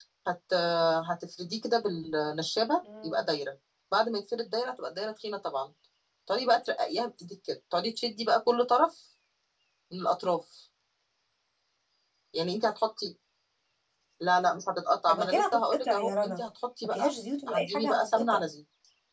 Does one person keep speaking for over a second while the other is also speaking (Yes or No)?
Yes